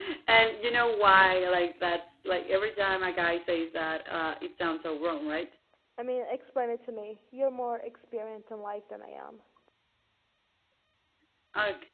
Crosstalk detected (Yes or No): No